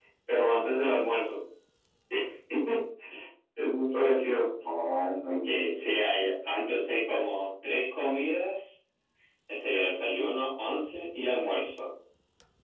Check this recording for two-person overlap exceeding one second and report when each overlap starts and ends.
none

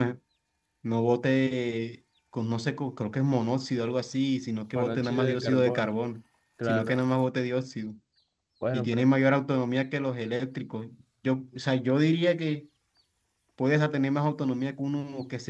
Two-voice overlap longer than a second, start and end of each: 4.8-6.0

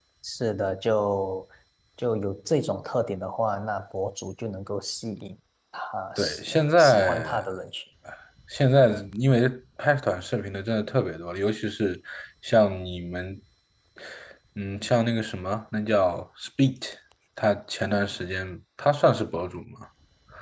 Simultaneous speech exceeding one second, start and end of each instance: 6.2-7.4

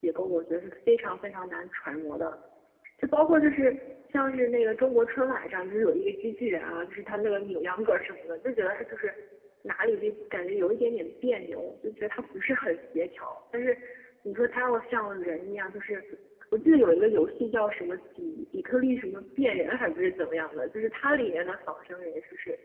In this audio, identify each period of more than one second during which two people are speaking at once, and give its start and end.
none

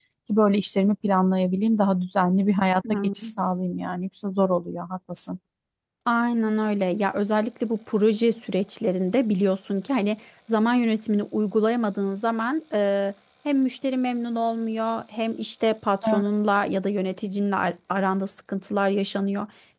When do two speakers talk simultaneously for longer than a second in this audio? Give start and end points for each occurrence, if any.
none

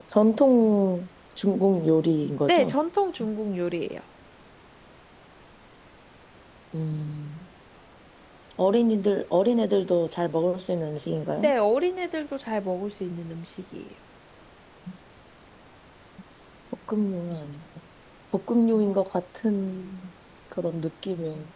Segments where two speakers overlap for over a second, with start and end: none

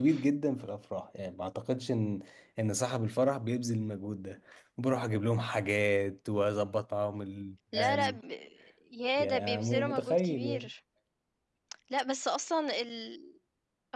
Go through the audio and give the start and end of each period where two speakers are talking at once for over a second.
9.2-10.7

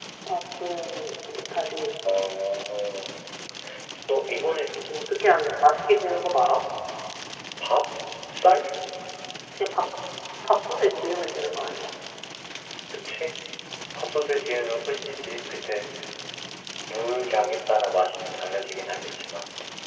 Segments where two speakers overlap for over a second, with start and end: none

